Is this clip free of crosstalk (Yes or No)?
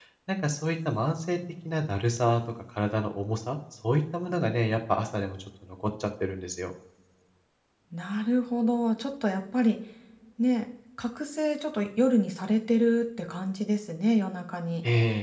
Yes